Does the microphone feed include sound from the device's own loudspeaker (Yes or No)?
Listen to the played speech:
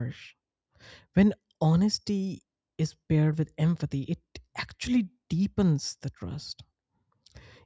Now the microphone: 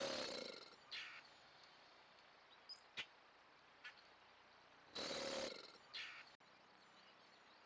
No